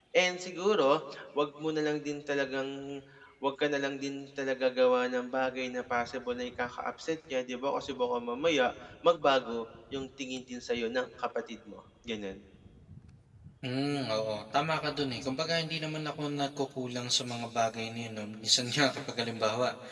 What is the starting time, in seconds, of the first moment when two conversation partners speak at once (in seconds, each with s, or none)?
none